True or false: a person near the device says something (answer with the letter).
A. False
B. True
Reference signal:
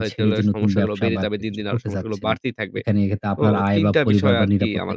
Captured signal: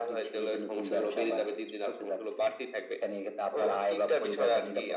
A